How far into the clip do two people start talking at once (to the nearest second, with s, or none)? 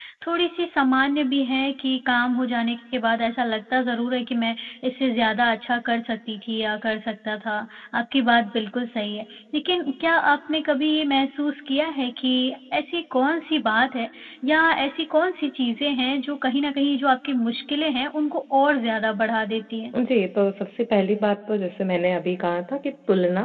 none